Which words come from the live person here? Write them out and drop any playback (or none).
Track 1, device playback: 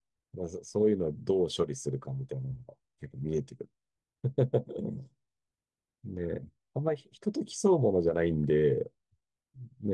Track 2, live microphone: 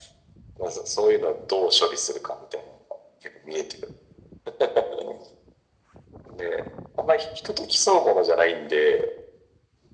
none